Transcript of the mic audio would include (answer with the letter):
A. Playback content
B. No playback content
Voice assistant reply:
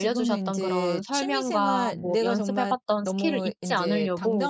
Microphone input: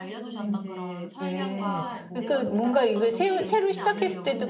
A